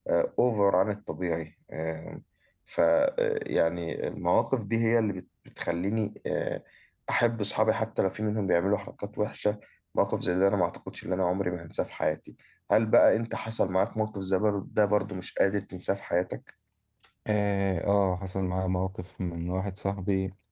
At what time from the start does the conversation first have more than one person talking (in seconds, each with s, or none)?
none